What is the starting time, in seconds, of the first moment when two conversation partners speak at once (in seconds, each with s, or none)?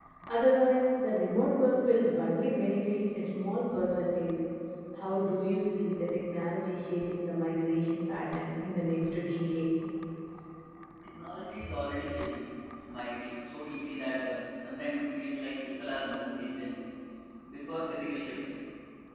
none